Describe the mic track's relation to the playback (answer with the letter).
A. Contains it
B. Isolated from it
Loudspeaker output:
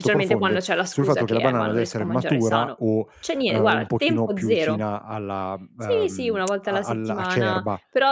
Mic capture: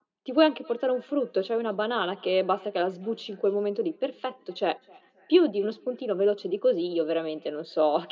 B